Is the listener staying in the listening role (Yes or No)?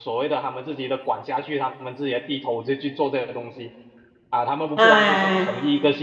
Yes